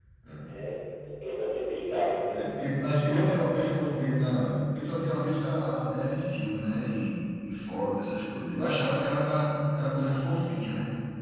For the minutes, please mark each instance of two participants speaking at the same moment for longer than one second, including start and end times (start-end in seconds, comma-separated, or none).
none